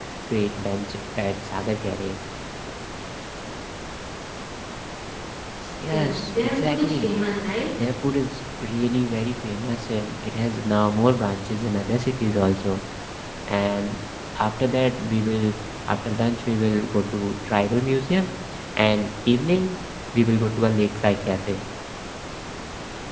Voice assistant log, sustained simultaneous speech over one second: present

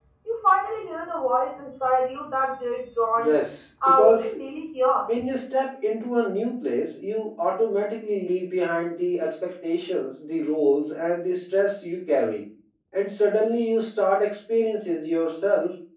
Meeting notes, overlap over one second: none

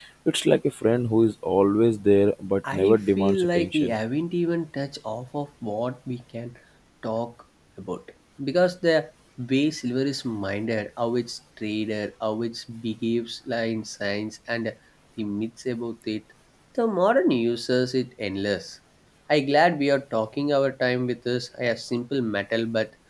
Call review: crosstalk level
present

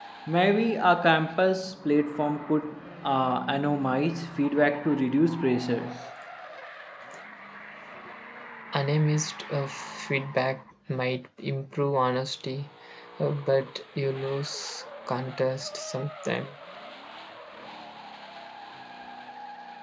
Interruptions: none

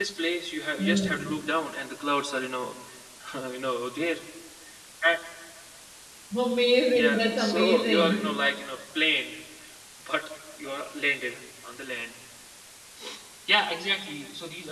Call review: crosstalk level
present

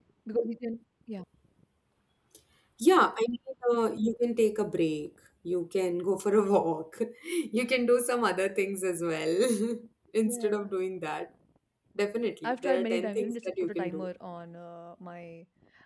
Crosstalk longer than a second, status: present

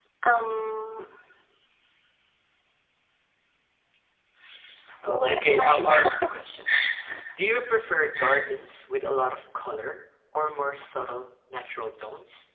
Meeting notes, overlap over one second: present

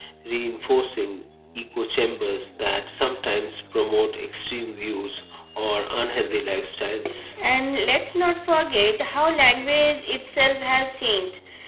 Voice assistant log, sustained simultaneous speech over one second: none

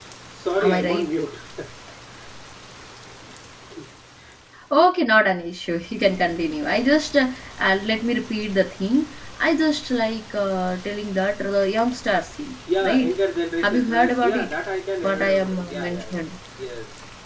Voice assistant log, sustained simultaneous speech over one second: present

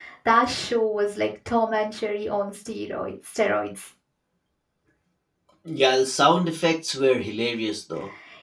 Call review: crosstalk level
none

